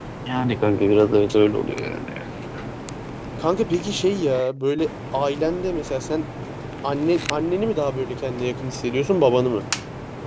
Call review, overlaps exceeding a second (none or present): none